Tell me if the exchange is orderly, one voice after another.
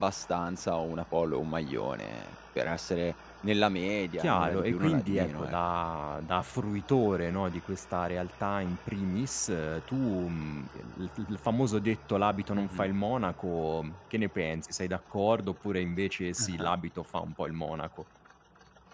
No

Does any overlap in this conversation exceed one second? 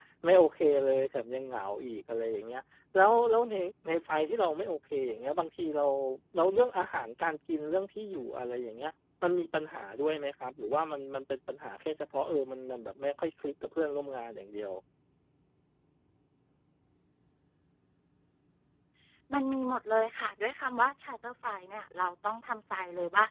No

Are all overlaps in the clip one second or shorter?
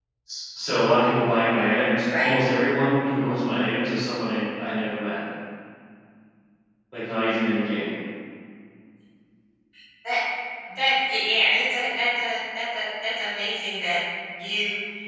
Yes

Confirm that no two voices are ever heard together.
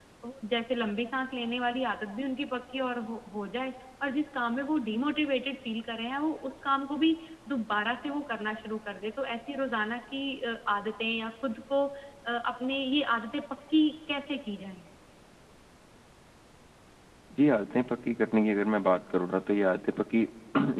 Yes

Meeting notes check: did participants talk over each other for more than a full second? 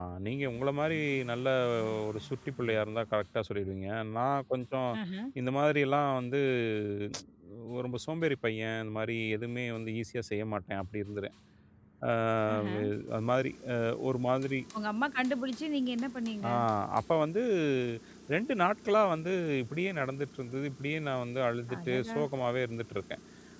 No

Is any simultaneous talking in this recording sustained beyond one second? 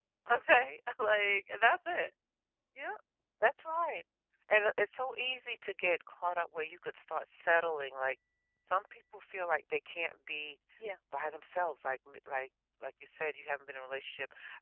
No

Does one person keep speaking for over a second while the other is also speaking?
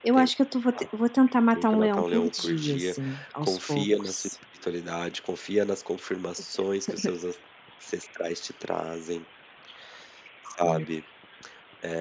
Yes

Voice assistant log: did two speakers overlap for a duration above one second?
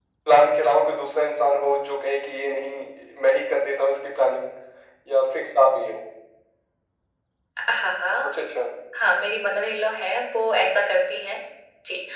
No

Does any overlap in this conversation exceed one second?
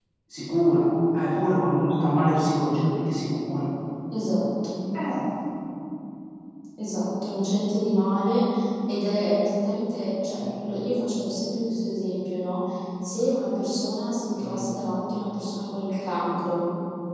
No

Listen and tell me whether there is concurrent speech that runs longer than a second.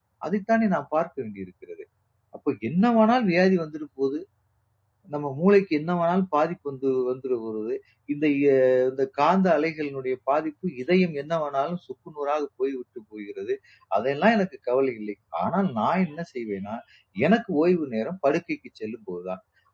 No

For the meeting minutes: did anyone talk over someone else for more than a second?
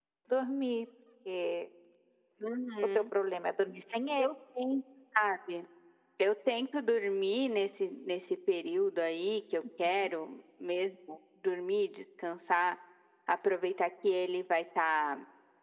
No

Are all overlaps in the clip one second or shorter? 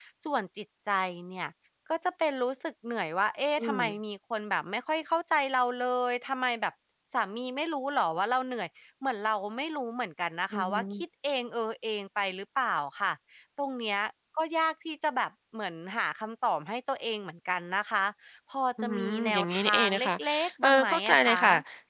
No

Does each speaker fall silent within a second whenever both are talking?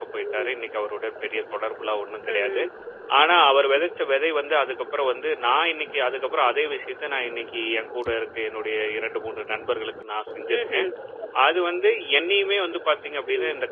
Yes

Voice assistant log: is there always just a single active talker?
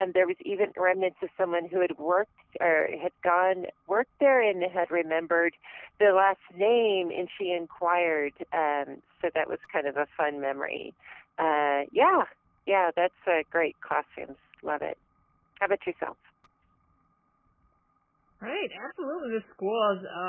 Yes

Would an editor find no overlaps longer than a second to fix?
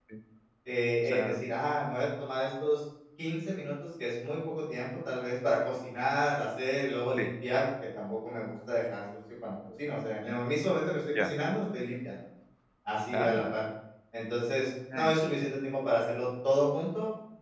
Yes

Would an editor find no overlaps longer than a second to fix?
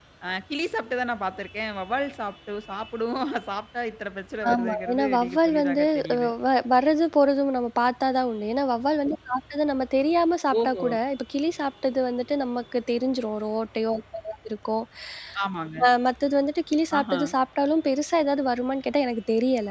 No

